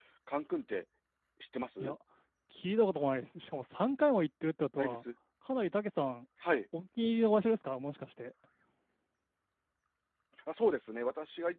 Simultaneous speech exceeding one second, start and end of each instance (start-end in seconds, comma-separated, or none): none